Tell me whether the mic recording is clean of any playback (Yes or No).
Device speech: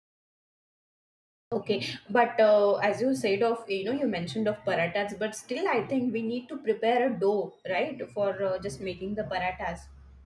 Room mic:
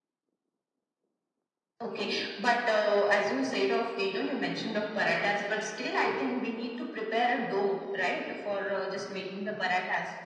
No